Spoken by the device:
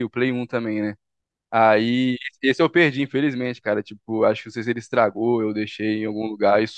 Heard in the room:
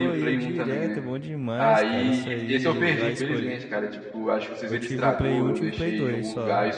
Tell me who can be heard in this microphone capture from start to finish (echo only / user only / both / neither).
both